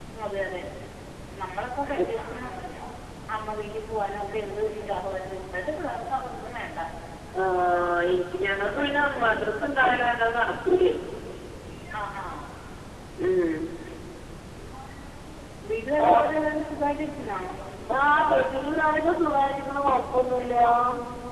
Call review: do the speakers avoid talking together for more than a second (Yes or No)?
Yes